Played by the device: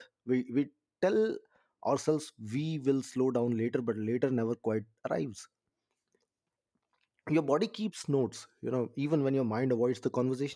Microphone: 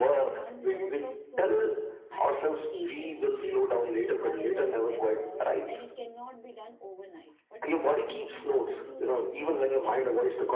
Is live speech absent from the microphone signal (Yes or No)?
No